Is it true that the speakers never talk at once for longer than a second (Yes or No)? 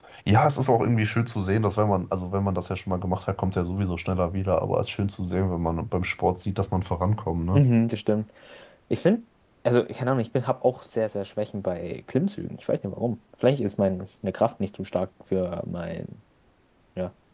Yes